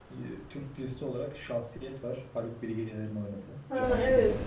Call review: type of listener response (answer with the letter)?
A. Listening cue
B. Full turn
B